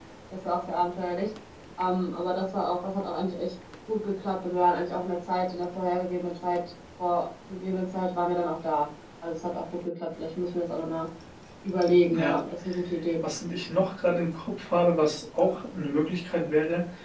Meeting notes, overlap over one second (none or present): none